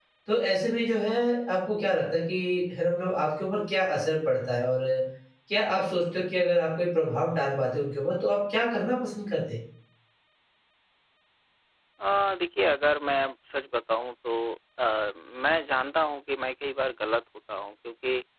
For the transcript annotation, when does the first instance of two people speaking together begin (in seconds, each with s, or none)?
none